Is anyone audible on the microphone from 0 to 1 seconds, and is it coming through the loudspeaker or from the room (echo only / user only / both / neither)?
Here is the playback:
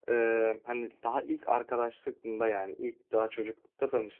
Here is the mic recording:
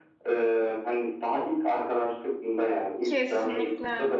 echo only